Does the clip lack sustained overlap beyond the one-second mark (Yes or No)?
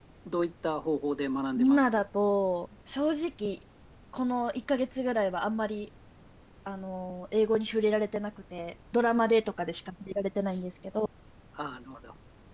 Yes